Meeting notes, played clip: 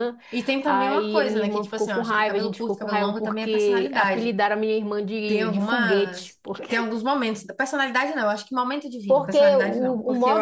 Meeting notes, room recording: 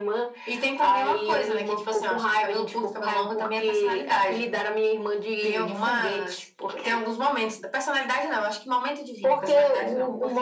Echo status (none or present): present